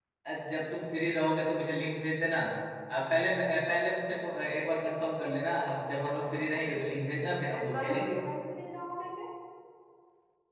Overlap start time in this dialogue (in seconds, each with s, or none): 6.0 s